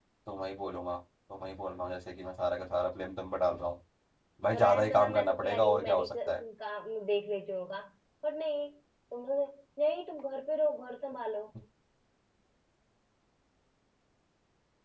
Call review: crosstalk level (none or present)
present